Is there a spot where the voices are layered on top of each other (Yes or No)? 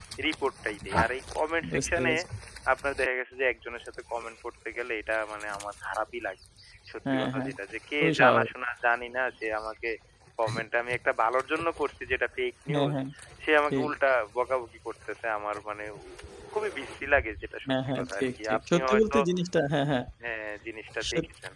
Yes